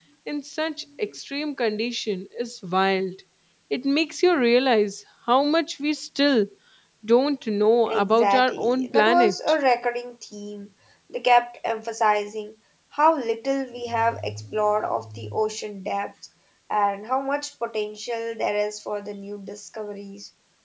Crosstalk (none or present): present